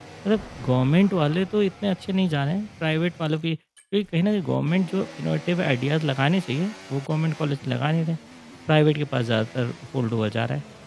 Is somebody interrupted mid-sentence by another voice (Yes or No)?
No